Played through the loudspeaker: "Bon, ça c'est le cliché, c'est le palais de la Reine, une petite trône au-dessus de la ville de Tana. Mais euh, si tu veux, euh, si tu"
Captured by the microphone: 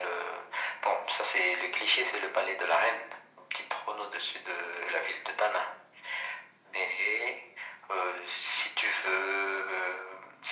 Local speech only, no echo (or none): none